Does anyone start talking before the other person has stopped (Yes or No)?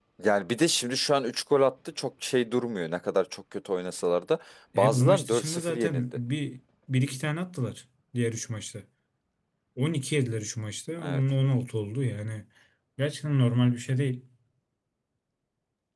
Yes